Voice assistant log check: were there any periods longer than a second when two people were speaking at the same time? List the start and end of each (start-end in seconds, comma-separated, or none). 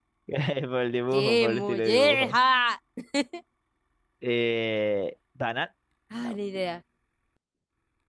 1.1-2.4